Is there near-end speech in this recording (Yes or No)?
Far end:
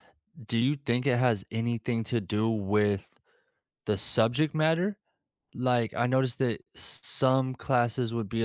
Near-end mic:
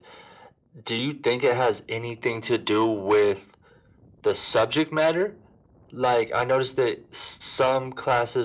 No